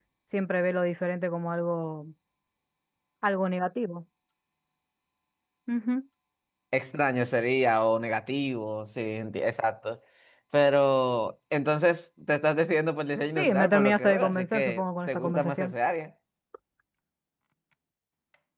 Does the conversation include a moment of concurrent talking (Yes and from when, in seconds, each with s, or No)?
Yes, from 13.4 s